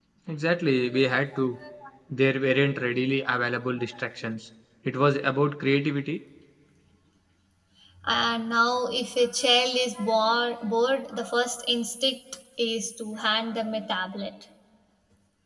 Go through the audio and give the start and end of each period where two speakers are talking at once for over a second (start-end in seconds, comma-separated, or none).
none